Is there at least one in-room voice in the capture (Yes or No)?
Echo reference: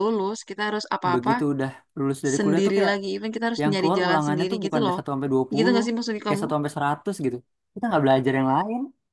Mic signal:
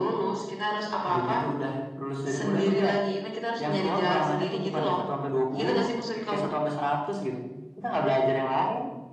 No